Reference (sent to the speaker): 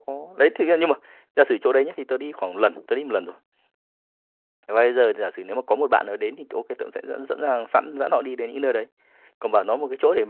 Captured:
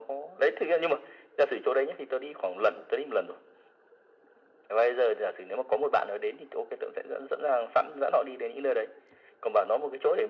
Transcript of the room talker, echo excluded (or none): none